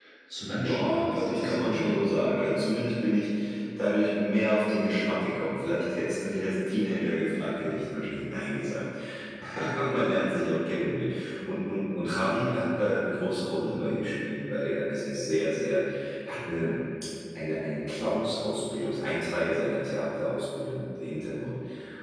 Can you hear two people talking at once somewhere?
Yes, from 0.6 s

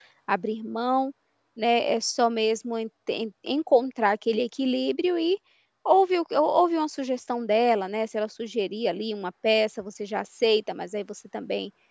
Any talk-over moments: No

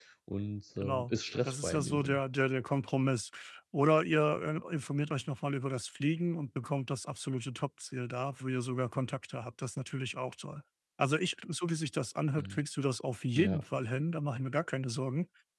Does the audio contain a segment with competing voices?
Yes, from 0.8 s

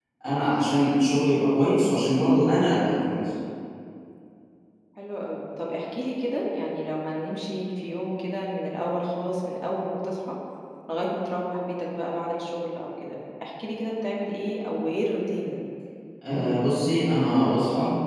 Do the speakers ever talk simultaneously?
No

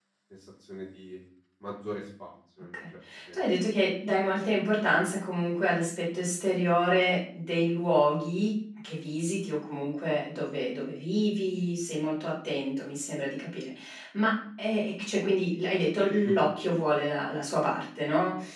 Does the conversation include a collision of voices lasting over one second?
No

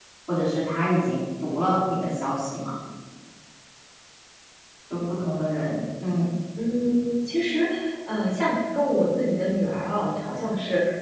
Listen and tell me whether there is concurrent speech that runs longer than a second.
No

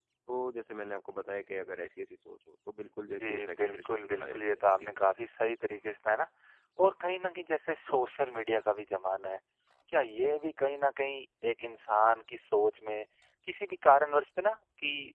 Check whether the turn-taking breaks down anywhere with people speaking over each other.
Yes, from 3.2 s

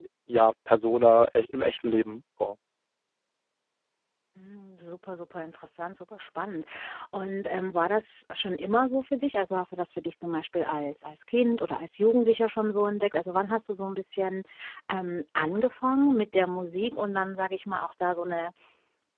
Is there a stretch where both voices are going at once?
No

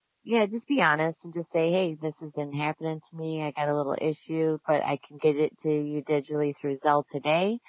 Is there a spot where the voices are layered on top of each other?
No

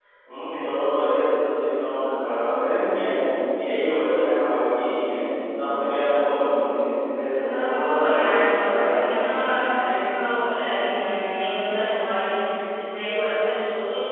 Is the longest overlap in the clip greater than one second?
Yes, from 7.3 s

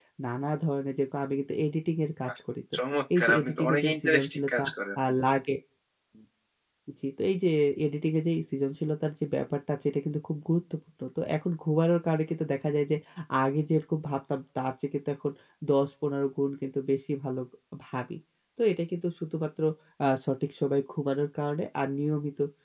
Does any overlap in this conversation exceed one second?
Yes, from 3.2 s

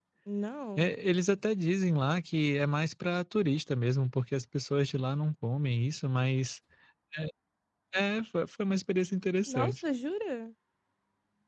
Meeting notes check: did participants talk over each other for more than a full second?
No

